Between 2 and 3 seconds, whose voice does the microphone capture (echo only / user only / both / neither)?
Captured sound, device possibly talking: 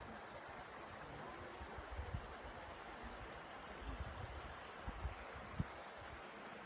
neither